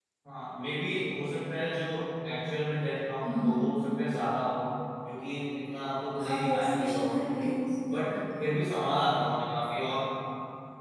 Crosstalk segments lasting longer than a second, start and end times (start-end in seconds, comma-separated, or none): 6.2-7.5